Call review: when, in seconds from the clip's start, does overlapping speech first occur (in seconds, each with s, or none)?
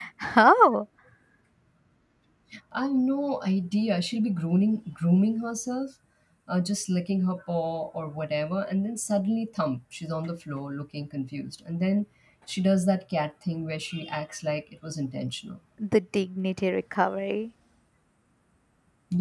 none